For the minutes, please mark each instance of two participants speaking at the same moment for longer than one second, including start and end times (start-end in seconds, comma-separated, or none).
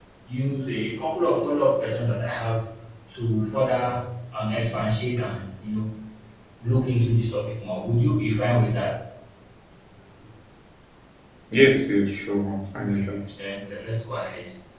none